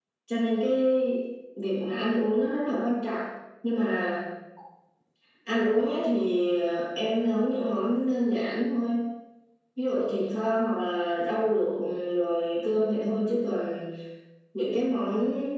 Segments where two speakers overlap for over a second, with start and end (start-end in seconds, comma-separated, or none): none